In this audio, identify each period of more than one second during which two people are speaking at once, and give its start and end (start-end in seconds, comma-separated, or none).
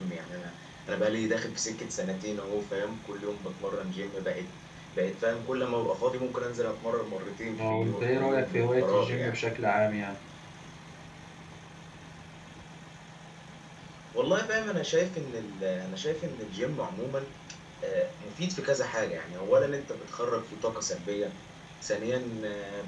7.6-9.3